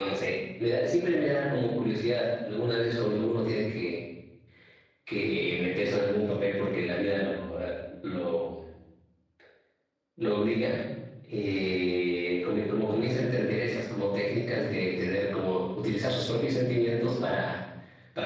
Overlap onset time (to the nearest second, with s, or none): none